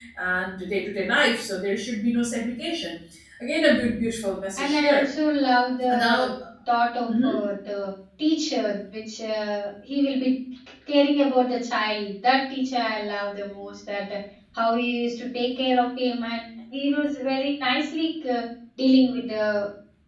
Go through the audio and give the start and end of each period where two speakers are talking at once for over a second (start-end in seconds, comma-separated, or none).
none